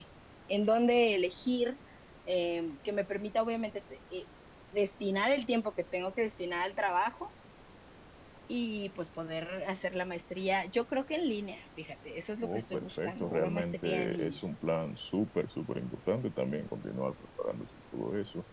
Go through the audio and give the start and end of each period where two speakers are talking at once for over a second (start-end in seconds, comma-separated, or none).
12.4-14.4